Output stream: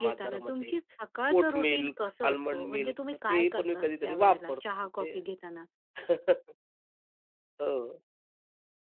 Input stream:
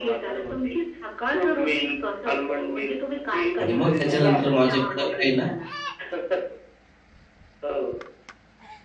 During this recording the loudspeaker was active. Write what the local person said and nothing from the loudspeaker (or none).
आणि मग त्याच्यानंतर माझ्याकडं काय आहे ना,